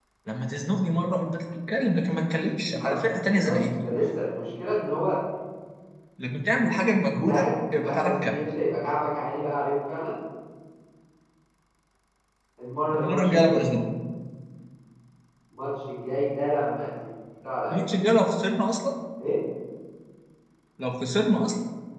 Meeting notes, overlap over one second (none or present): present